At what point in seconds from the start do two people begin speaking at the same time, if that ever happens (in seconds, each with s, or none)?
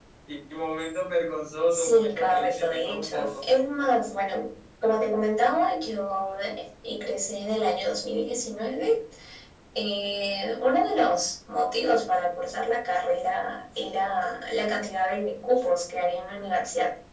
1.7 s